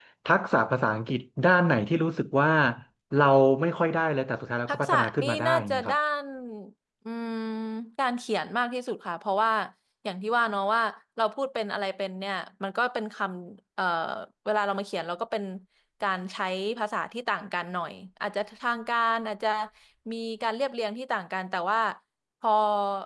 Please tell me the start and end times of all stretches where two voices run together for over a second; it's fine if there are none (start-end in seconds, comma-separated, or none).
4.7-5.9